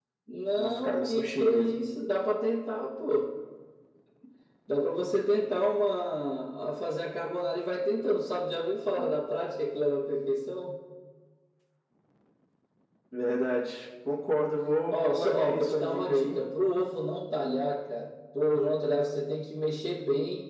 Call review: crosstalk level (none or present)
present